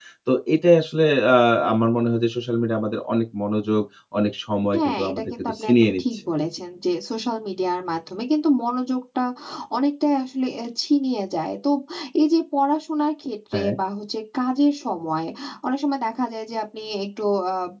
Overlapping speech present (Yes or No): Yes